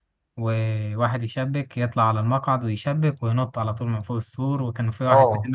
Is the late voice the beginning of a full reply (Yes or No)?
Yes